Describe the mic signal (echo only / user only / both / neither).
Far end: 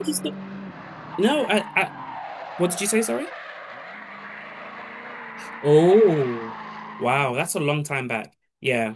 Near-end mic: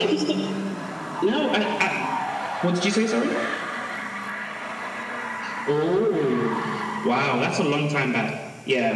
echo only